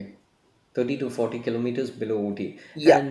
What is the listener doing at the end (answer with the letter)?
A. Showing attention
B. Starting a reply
A